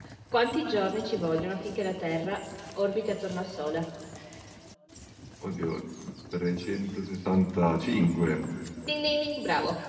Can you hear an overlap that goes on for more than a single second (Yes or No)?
No